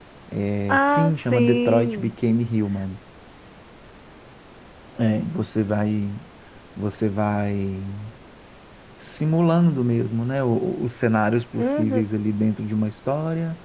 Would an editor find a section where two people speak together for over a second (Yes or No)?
Yes